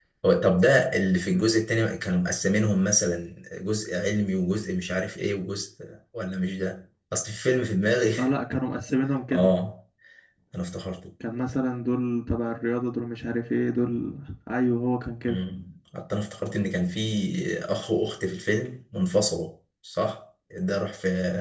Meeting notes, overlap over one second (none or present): none